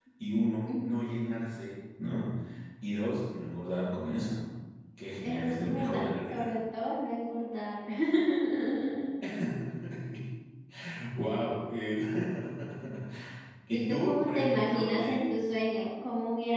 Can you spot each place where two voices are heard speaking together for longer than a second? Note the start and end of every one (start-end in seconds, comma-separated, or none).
5.2-6.5, 13.7-15.2